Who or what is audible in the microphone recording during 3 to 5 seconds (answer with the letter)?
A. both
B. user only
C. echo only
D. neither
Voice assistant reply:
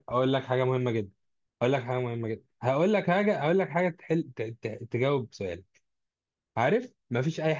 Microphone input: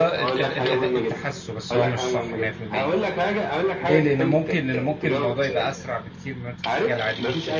A